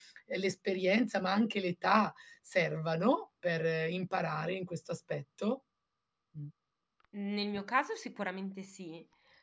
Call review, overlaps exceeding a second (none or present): none